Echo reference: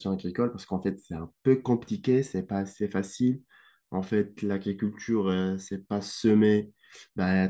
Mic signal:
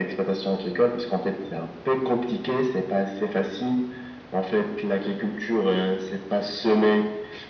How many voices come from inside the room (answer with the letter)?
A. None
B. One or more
A